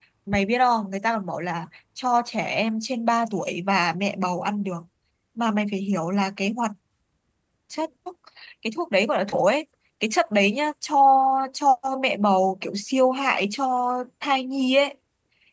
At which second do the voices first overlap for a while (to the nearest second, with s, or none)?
none